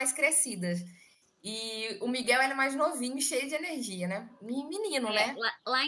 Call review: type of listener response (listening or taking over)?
taking over